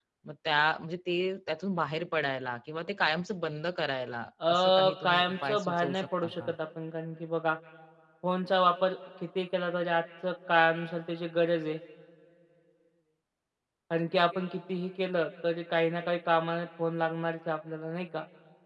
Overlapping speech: Yes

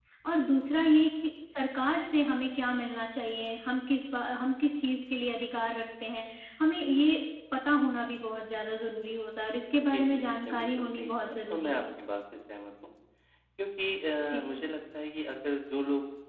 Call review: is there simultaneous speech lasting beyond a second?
Yes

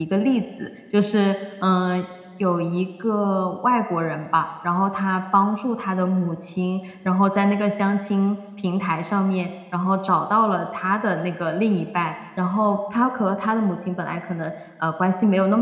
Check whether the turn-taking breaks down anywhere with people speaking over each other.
No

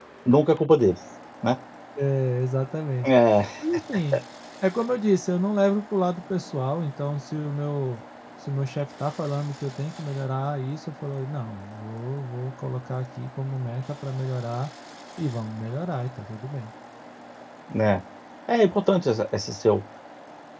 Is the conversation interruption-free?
Yes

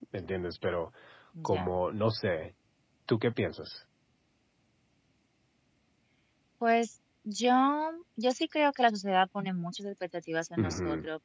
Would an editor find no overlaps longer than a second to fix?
Yes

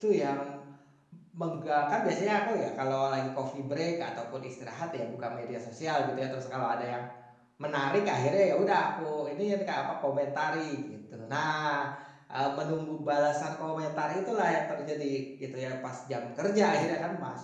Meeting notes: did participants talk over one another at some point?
No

